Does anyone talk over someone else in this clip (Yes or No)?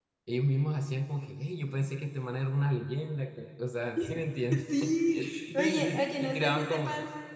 Yes